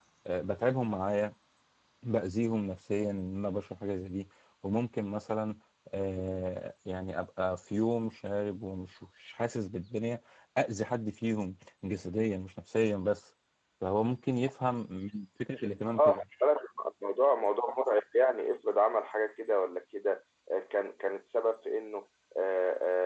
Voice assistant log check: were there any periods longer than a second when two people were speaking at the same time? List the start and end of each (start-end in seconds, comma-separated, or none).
none